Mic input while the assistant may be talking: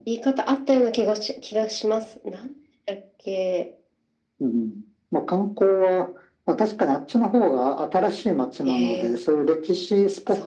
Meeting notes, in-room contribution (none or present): none